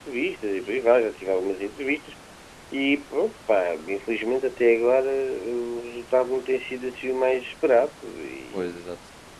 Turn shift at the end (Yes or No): Yes